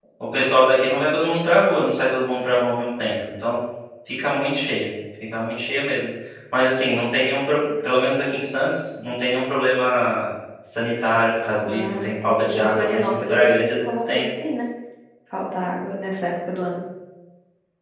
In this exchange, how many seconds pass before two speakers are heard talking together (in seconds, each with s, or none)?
11.7 s